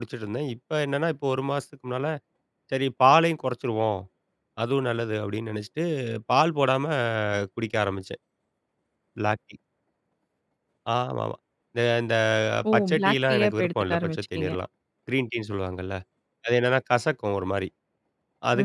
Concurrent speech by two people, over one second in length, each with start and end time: 12.7-14.5

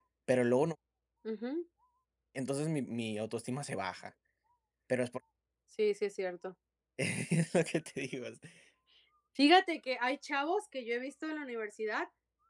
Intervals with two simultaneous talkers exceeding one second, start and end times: none

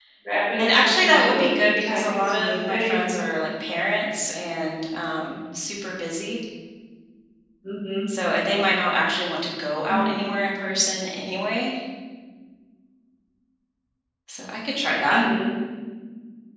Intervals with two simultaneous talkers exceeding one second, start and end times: 0.6-3.1

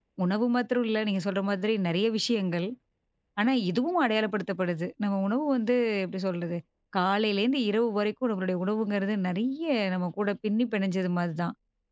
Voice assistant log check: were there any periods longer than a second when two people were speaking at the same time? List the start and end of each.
none

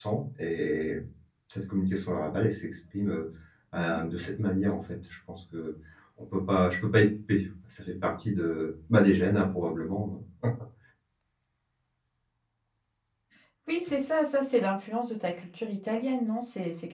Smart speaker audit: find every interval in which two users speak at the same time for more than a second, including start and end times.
none

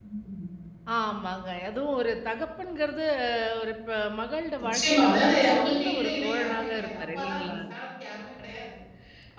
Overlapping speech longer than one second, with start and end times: 4.6-7.6

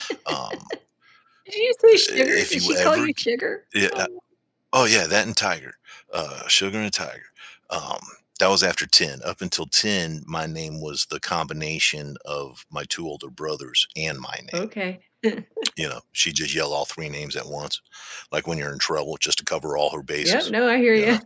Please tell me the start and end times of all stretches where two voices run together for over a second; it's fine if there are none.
1.9-3.3

